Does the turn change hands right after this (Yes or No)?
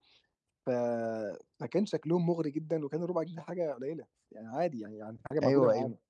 No